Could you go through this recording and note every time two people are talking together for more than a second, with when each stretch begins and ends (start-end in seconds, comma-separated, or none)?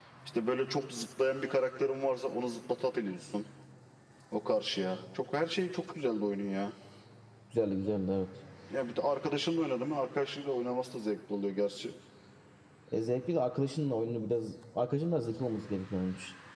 none